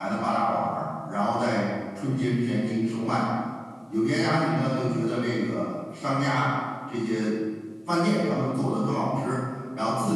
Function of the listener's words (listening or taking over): listening